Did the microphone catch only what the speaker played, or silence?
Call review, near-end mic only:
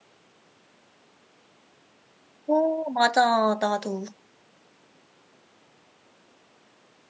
No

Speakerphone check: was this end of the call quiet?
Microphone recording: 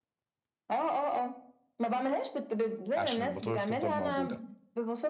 No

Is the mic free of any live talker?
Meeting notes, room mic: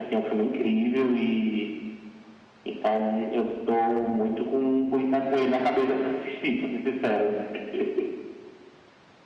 Yes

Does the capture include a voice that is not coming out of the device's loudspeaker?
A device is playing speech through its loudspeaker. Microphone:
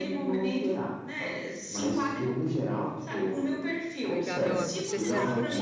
Yes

